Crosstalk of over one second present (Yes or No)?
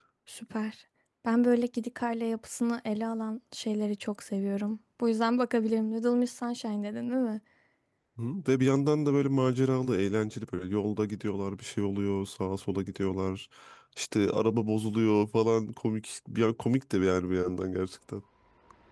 No